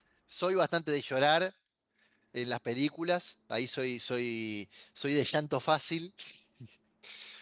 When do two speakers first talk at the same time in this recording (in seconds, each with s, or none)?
none